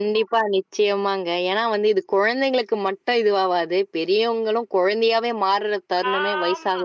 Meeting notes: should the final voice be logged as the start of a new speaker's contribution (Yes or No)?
Yes